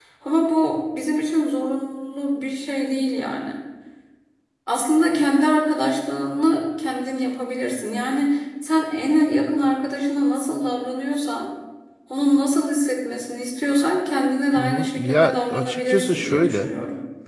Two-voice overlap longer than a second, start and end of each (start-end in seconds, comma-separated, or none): 14.6-16.7